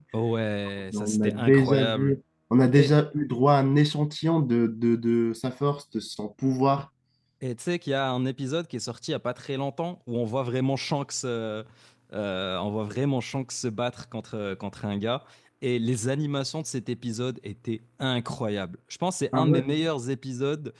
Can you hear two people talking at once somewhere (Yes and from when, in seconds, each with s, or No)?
Yes, from 0.9 s